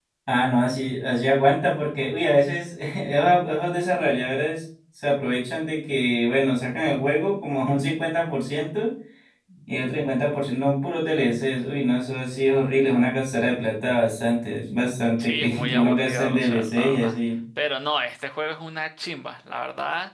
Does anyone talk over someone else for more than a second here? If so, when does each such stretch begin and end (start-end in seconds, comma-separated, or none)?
15.2-17.2